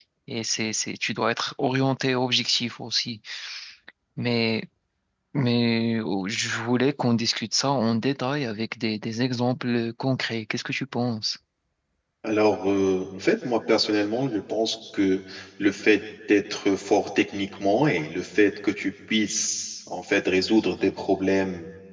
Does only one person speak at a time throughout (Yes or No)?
Yes